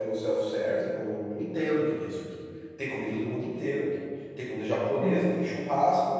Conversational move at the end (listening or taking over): listening